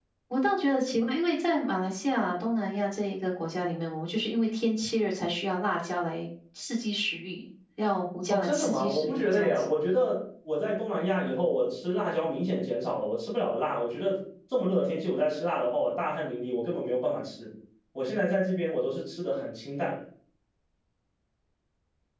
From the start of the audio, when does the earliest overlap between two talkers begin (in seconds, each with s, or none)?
8.3 s